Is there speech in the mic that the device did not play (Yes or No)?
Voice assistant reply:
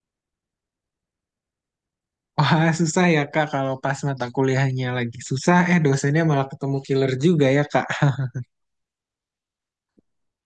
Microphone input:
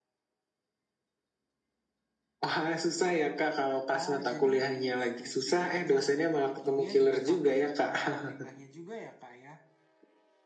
Yes